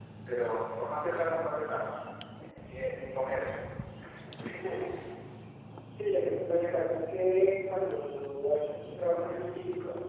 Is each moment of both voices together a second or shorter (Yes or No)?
Yes